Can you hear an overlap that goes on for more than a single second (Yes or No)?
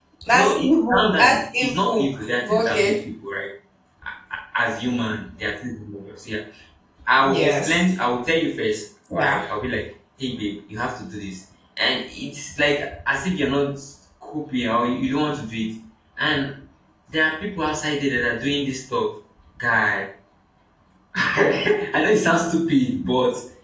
Yes